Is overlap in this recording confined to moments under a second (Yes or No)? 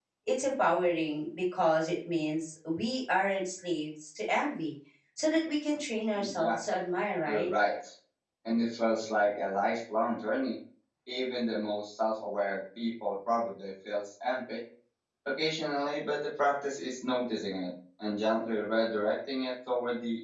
Yes